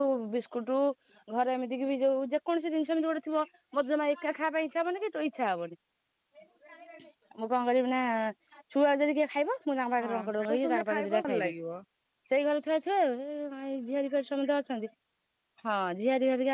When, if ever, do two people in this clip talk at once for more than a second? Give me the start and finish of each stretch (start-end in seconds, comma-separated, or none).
10.0-11.5